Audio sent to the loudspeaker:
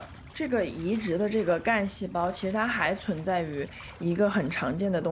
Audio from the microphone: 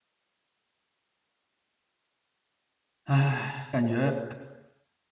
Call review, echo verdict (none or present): none